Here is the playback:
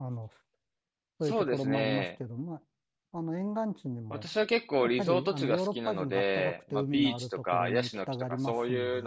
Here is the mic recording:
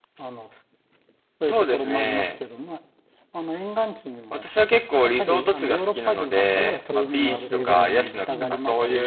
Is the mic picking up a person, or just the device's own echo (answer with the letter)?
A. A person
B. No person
A